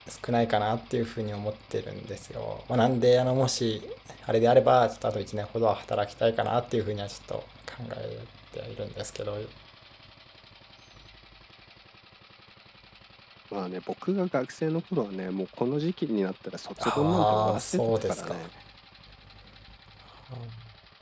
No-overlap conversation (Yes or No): No